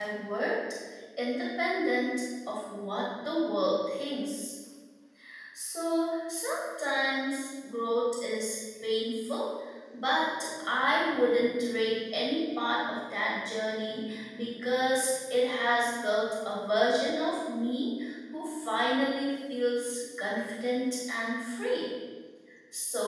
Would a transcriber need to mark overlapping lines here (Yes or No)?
No